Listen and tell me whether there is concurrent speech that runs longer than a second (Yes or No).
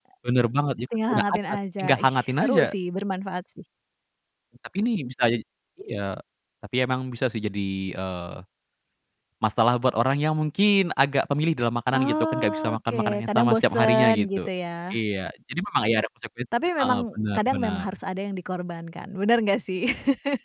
Yes